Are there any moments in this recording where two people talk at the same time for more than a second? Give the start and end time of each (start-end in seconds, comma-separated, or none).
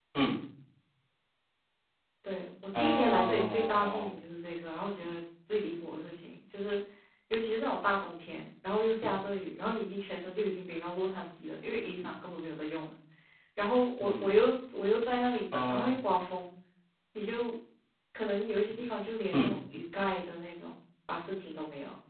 2.8-4.2